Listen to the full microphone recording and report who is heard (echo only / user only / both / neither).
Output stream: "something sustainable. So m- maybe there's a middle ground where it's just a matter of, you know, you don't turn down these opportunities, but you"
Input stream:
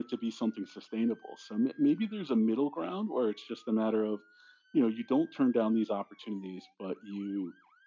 echo only